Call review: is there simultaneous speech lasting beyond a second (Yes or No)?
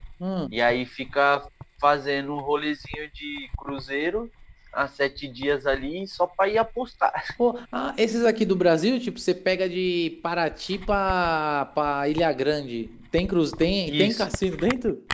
No